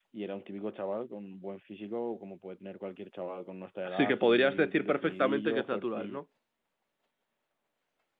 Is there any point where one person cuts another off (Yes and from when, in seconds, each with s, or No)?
Yes, from 3.9 s